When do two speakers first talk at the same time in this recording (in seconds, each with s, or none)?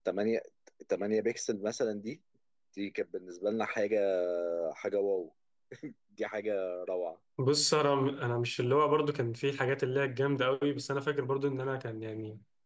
none